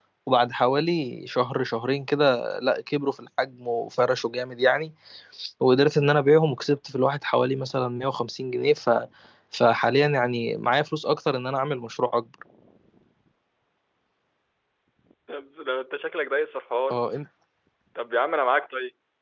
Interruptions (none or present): none